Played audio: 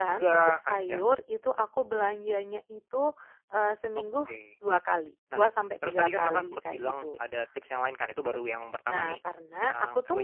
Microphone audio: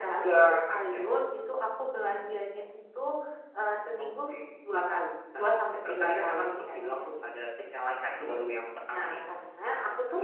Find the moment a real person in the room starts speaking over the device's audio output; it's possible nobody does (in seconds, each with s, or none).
none